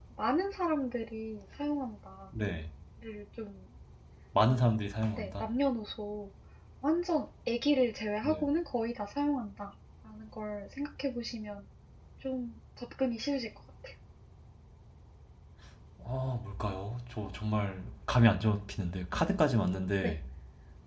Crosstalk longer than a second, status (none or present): none